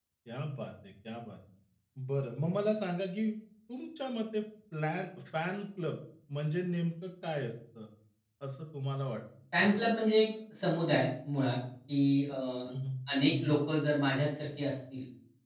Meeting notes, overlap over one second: none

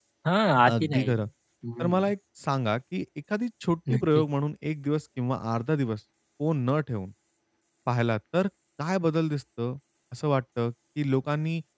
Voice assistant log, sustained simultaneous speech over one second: none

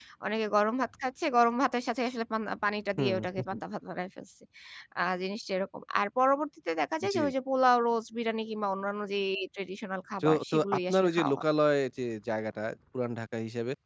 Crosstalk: present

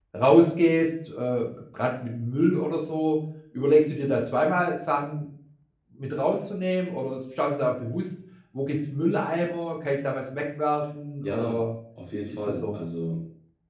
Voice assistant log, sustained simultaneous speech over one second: none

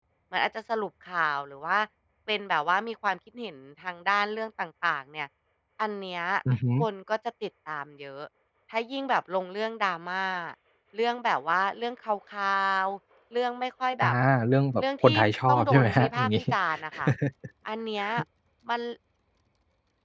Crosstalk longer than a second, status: present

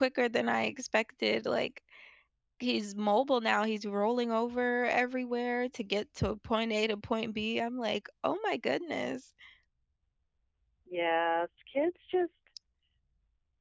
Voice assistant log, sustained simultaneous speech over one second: none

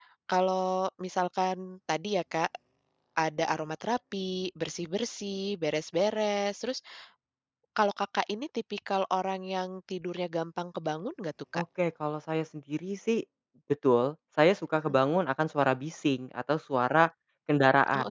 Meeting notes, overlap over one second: none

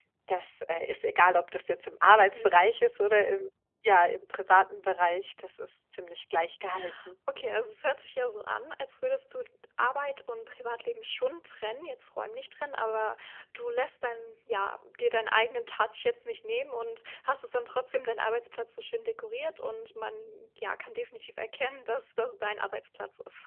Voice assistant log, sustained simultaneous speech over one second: none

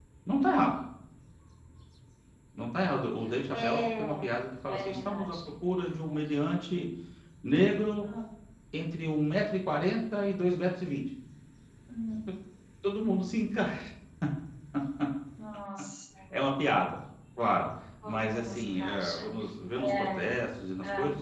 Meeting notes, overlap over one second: present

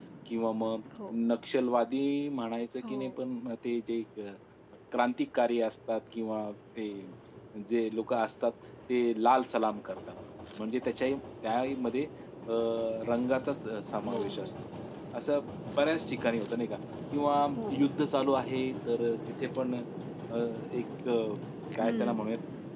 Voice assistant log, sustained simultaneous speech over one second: none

